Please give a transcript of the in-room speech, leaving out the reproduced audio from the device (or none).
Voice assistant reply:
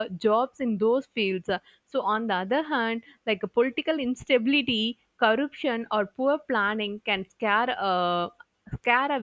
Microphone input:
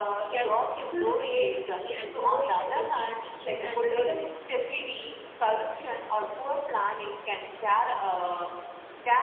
can stifle the creativity and innovation in these teaching and learning